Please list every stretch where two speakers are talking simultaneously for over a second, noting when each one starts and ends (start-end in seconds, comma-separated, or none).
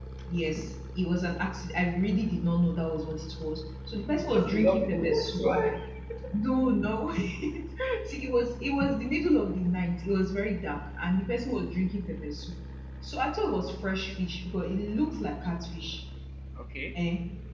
4.2-5.4